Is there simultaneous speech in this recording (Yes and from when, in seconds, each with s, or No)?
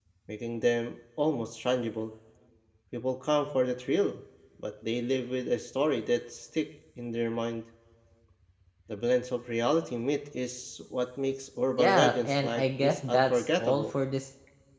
Yes, from 11.7 s